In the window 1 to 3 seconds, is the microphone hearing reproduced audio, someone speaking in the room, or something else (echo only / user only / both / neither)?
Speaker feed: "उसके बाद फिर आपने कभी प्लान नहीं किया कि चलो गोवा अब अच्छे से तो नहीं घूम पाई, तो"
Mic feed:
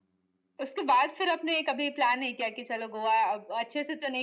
echo only